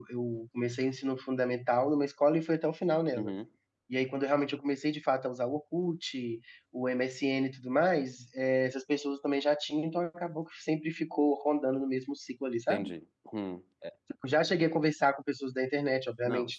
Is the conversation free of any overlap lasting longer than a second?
Yes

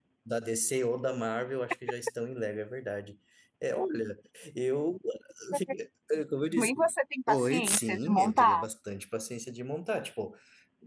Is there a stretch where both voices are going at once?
Yes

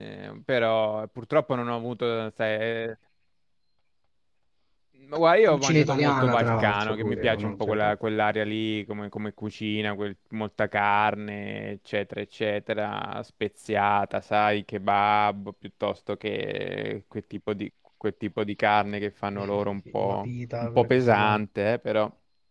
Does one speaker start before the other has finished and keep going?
Yes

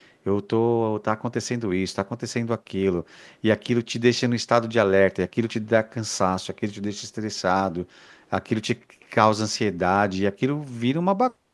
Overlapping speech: No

